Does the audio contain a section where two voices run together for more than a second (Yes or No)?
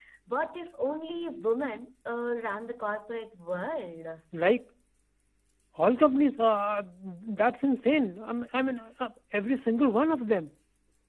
No